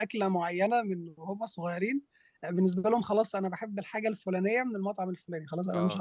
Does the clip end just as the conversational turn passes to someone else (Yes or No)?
Yes